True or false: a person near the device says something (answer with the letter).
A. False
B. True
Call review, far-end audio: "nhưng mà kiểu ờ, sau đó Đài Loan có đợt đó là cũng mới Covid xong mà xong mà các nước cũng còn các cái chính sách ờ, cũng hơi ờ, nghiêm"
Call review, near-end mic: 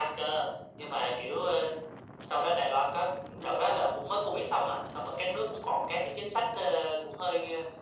A